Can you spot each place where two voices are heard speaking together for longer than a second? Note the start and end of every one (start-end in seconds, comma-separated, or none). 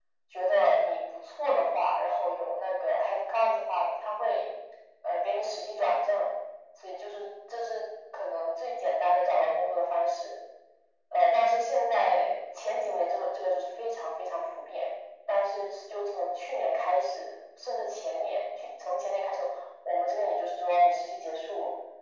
none